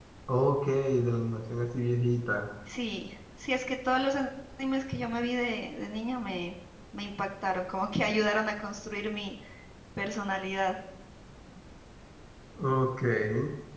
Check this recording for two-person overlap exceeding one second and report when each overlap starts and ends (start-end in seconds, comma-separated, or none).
none